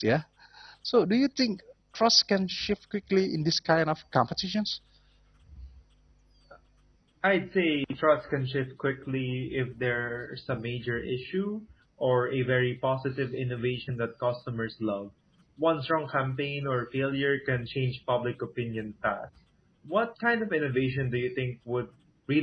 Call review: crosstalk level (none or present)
none